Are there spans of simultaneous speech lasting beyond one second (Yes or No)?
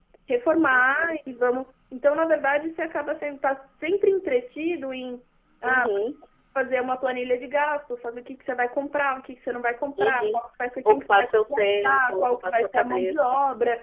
Yes